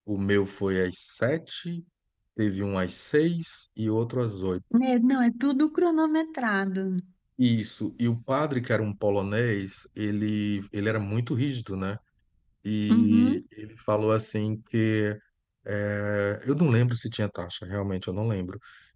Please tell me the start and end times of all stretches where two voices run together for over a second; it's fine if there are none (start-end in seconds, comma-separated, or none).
none